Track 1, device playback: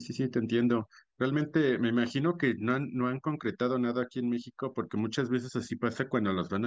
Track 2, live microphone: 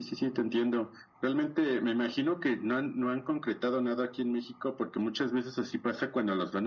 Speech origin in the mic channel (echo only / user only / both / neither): echo only